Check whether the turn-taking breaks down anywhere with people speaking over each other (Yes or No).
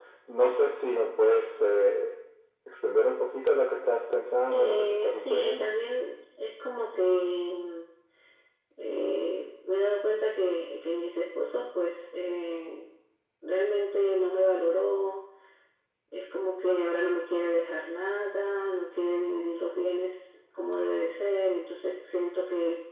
Yes